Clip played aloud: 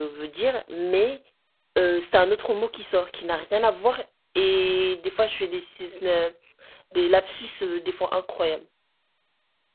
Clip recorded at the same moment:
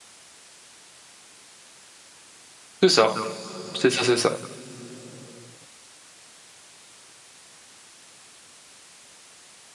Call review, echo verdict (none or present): none